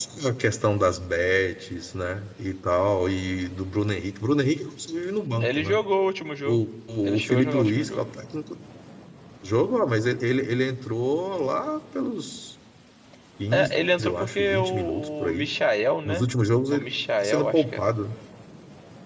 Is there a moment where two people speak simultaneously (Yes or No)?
Yes